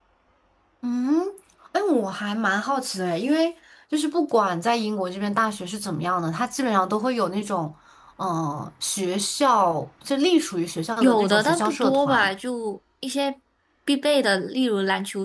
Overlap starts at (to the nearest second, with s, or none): 11 s